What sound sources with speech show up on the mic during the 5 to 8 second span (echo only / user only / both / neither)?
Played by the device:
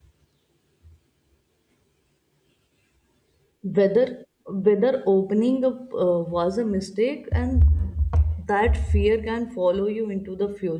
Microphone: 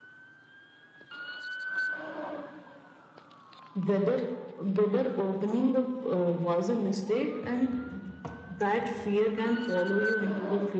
echo only